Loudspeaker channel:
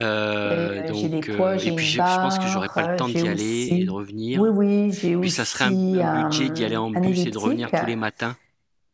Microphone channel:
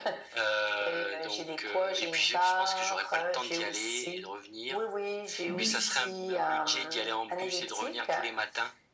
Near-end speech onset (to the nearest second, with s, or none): 5 s